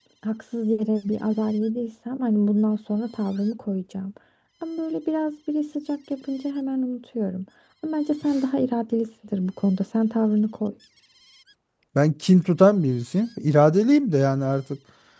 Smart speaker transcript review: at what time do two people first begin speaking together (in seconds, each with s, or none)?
none